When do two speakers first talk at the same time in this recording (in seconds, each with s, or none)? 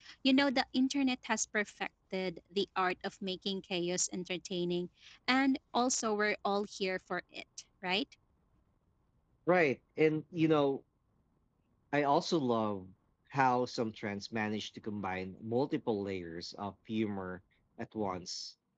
none